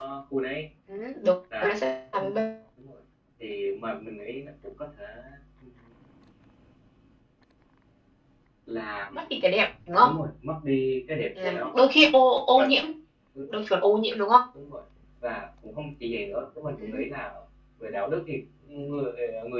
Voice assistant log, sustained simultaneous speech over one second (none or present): none